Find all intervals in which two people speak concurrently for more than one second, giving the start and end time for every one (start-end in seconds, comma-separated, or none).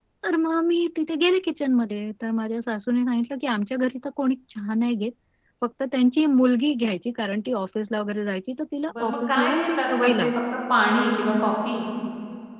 9.0-10.3